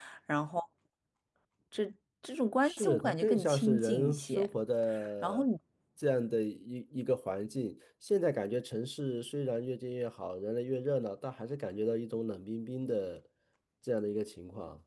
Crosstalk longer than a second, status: present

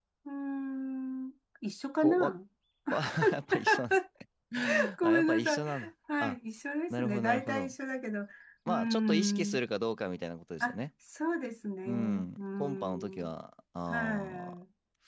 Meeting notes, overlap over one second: present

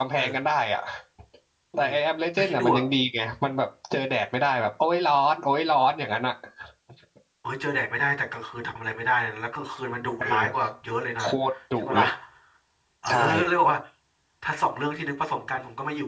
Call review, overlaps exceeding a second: none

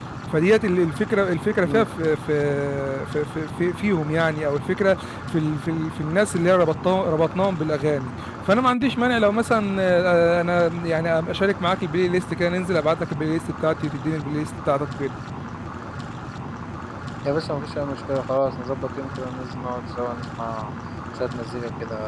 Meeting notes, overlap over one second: none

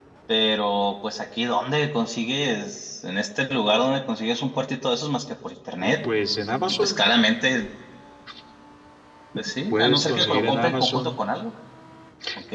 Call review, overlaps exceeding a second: present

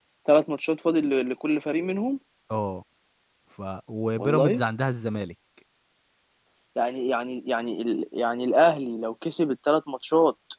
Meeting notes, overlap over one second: none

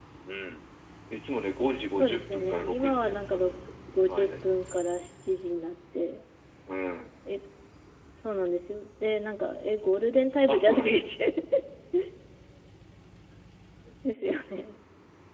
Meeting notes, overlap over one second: present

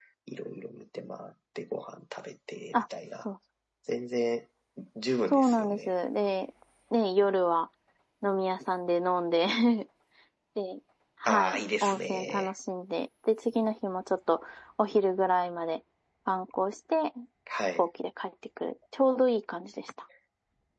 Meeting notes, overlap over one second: present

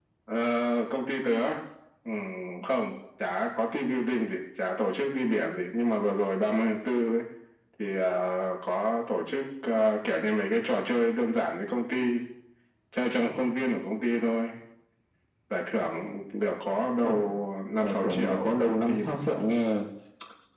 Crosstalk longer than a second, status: present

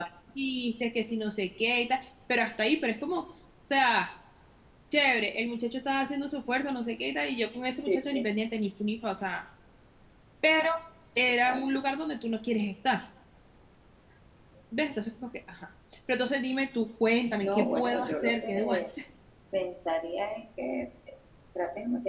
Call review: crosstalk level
present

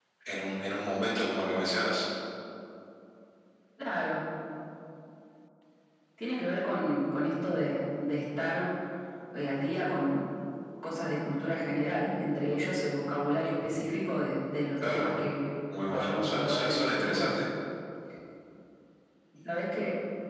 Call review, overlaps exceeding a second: present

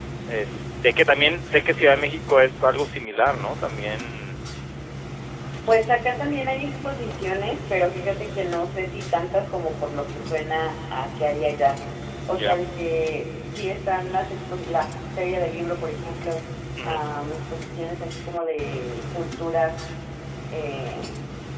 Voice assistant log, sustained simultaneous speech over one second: none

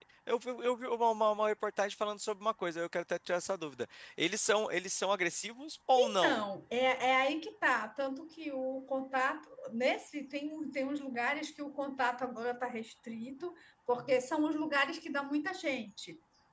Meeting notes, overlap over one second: none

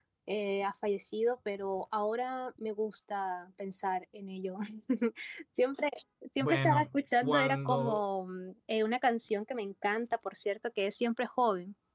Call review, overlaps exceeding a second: present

